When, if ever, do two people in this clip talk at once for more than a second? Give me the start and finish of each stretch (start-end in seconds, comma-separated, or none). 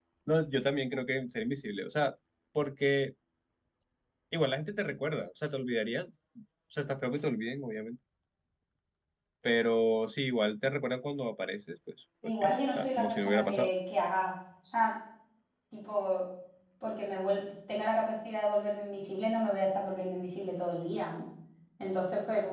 12.2-13.7